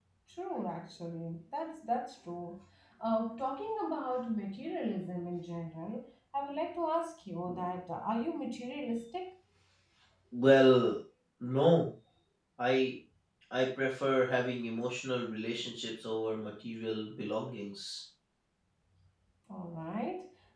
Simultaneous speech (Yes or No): No